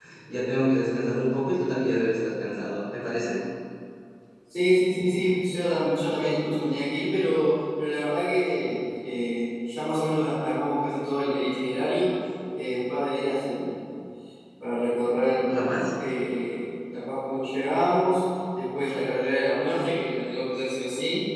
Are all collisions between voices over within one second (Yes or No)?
Yes